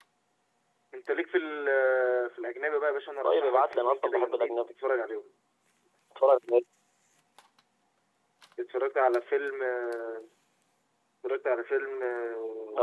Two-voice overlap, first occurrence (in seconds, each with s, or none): 3.2 s